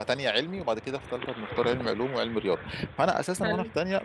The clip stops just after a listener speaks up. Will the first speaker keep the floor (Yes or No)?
Yes